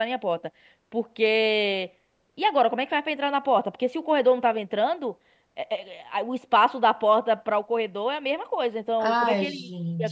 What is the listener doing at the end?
taking over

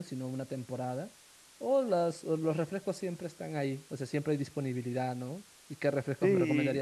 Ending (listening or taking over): listening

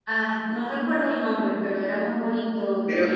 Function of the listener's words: listening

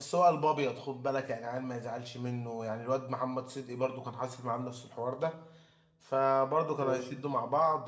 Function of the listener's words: listening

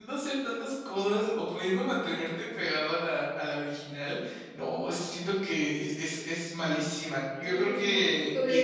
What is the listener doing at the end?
taking over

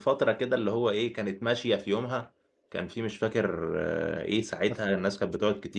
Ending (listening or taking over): listening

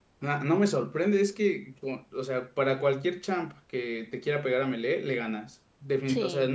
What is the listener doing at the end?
listening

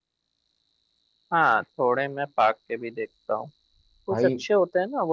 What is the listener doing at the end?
listening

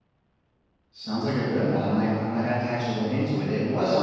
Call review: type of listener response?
listening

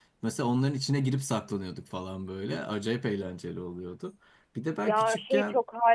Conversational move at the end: taking over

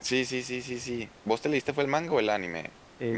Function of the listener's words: taking over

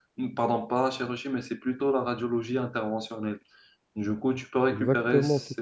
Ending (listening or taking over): taking over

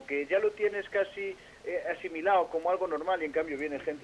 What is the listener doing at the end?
listening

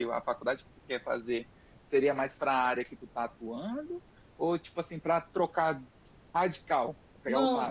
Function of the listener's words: taking over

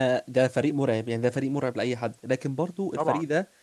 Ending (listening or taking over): listening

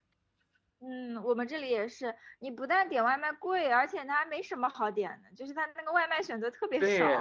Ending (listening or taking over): taking over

